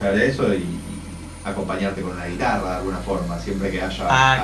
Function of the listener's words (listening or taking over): listening